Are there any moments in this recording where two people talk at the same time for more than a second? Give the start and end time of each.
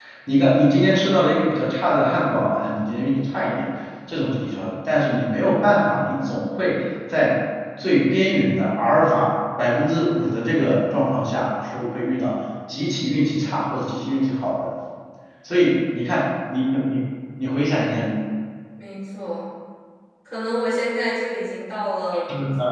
none

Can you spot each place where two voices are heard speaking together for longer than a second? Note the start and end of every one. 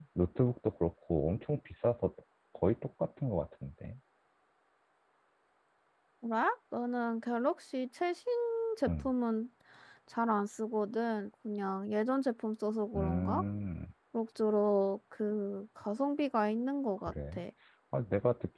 none

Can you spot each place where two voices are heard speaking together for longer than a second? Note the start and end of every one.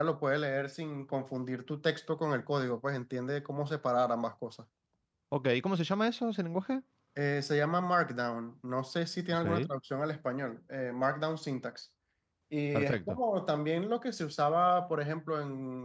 none

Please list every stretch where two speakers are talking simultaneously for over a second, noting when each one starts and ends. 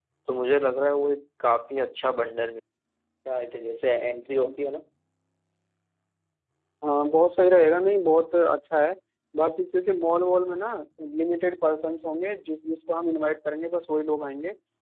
none

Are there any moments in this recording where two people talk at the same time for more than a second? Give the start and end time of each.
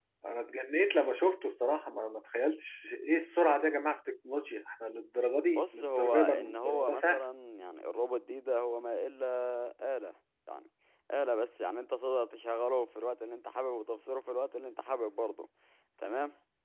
5.5-7.2

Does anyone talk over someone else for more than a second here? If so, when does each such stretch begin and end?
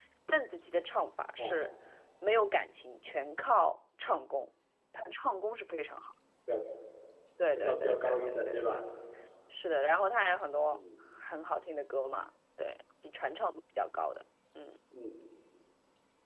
7.5-8.8

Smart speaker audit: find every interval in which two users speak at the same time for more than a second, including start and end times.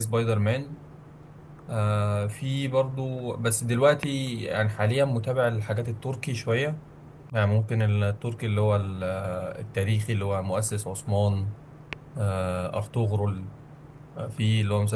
none

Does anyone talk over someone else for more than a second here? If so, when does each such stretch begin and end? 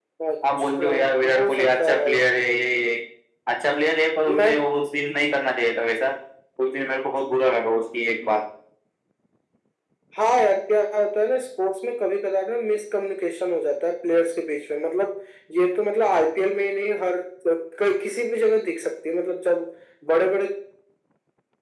0.6-2.2

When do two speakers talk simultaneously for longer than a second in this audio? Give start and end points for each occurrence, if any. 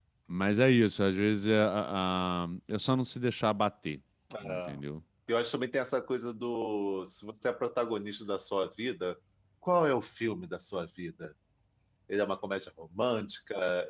none

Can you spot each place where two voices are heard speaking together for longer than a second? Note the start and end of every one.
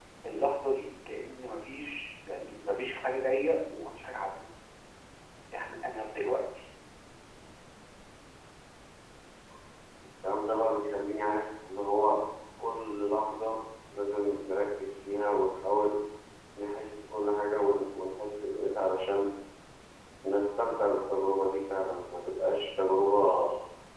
none

